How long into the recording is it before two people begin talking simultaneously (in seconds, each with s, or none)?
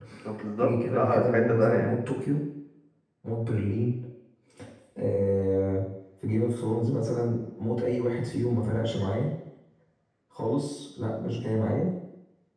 0.6 s